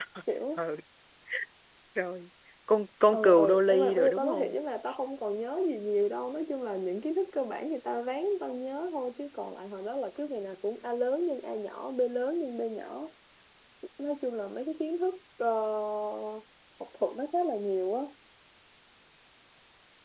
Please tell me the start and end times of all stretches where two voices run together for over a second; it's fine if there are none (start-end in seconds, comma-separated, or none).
3.1-4.6